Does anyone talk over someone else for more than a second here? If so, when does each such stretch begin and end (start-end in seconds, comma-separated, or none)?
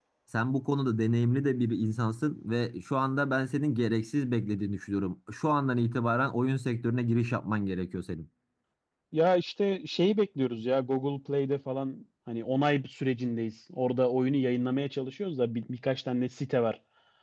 none